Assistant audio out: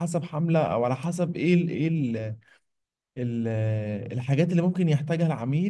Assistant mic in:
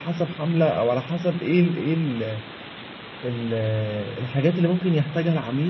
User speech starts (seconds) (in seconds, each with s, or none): none